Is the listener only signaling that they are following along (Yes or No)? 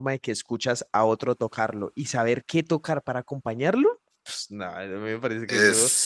Yes